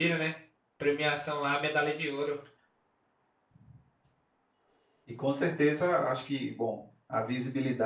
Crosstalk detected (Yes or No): No